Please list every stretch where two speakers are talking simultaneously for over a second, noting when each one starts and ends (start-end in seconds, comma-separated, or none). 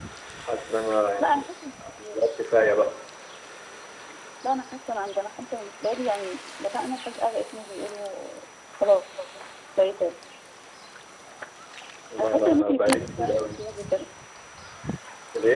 12.2-13.6